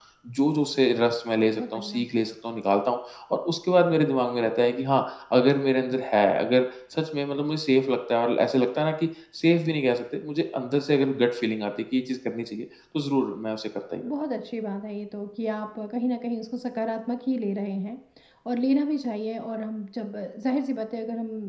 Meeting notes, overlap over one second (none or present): none